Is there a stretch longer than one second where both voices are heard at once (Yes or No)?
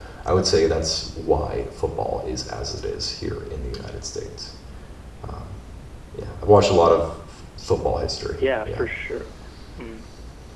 No